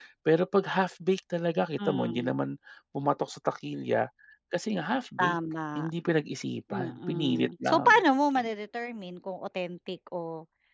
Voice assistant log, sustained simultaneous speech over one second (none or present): present